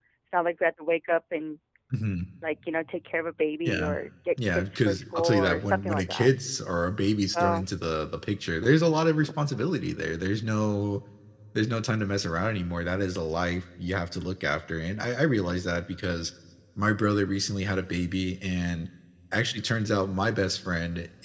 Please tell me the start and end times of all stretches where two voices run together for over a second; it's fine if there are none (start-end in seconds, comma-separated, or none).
4.5-6.3